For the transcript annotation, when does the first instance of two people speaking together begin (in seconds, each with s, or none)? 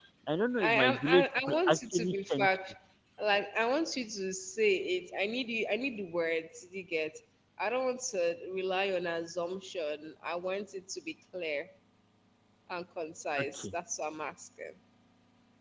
0.6 s